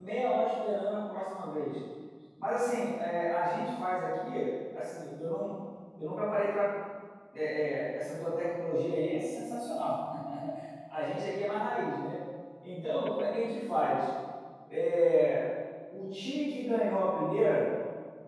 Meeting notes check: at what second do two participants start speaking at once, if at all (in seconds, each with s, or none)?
none